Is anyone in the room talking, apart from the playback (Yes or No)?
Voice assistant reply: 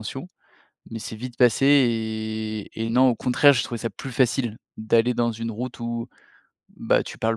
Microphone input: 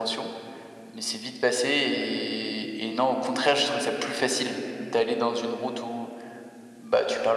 No